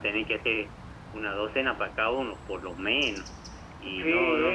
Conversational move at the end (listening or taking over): taking over